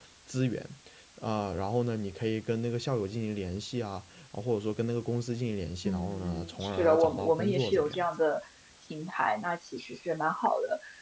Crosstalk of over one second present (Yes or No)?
Yes